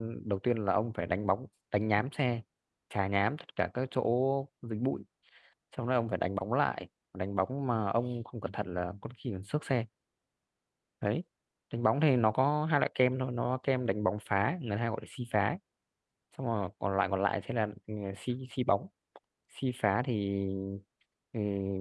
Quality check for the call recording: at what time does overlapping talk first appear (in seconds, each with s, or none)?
none